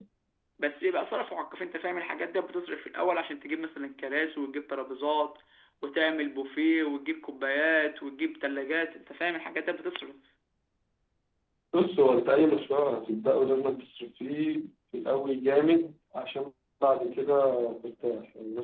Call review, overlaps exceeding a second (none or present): none